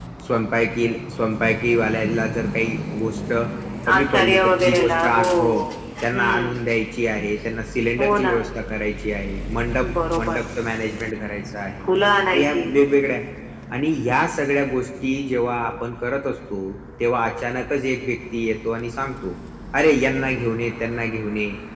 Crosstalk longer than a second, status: present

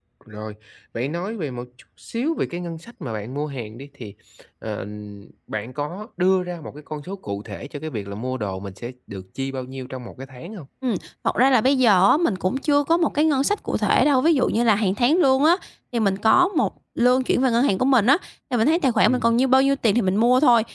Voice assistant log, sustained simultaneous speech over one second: none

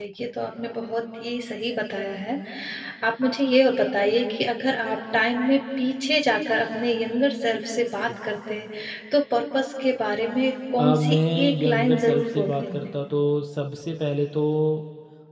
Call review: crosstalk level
present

